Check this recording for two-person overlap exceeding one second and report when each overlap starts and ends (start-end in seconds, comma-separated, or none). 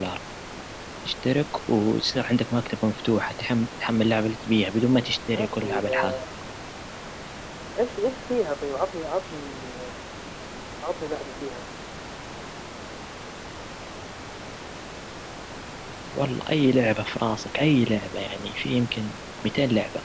4.9-6.2